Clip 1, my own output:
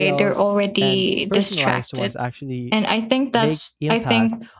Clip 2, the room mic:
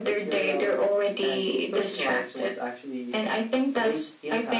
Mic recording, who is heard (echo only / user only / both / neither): echo only